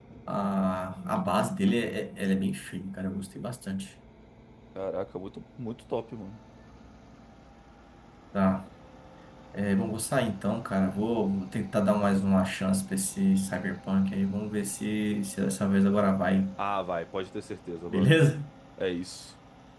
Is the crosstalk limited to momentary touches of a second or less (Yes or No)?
Yes